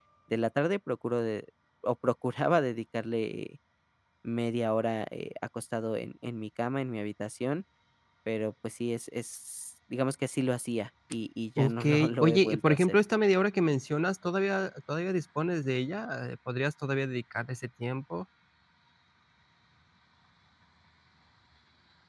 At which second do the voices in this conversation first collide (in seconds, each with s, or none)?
11.6 s